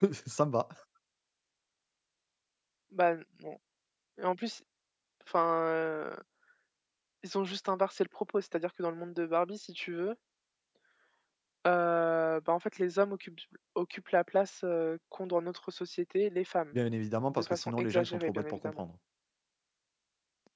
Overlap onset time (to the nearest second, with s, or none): 17 s